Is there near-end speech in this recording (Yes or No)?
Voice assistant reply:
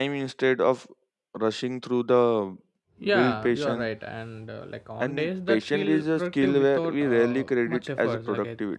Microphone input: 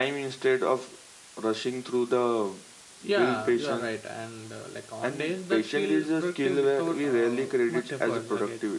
No